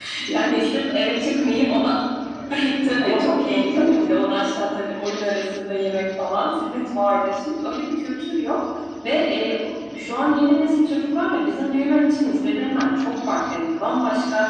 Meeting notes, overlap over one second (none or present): present